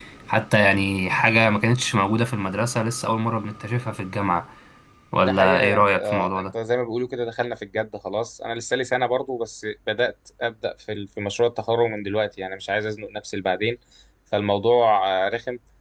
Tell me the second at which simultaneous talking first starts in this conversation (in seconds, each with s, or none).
5.2 s